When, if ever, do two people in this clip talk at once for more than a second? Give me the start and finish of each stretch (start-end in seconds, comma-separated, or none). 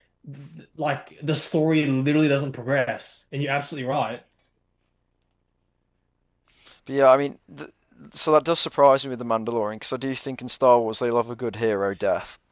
none